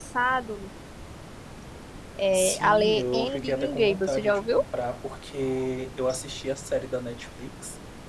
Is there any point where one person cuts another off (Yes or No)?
Yes